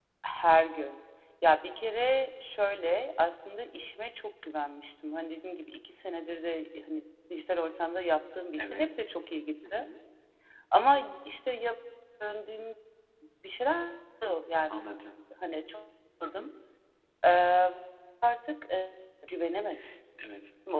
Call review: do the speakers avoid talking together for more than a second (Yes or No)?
Yes